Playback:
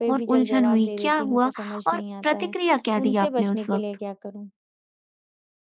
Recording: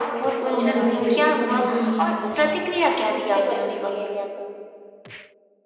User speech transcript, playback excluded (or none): अब मुझे ना देखिए समझ भी नहीं आ रहा है।